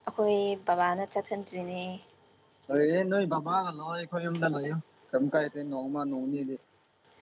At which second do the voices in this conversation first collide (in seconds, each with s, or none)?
none